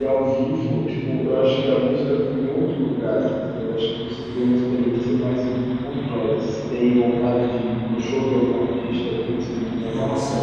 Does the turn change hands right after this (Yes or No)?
Yes